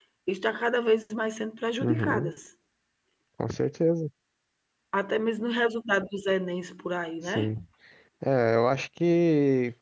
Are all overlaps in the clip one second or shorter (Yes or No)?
Yes